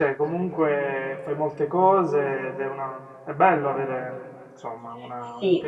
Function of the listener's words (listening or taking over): taking over